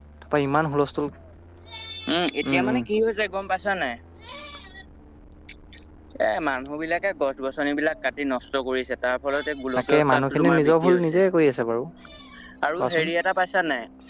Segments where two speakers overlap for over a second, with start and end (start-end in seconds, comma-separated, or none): 9.8-11.2